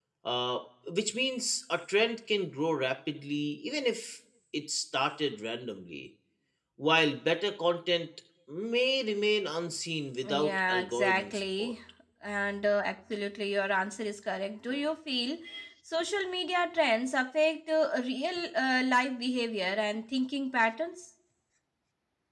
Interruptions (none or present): present